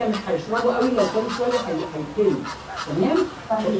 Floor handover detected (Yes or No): No